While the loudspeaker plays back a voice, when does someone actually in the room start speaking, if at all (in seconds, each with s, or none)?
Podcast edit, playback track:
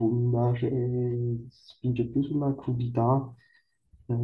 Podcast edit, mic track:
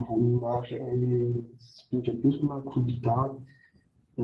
none